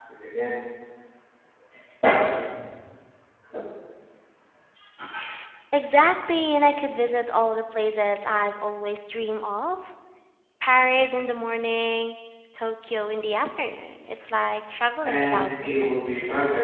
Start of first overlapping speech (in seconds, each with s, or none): 15.0 s